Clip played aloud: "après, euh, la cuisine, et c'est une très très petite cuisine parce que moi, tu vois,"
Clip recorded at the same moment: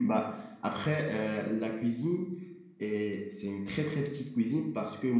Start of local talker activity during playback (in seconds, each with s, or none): none